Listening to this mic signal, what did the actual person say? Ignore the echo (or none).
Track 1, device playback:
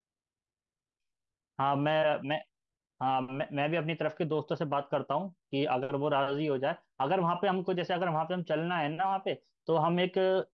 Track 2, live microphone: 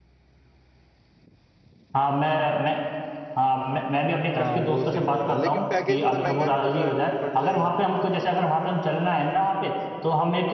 हाँ वो सही रहेगा लेकिन पैकेज थोड़ा महंगा नहीं पड़ रहा पड़ जाएगा